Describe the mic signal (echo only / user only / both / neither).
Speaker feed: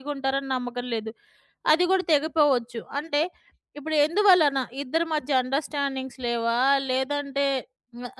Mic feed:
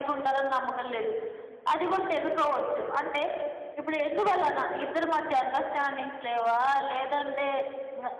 echo only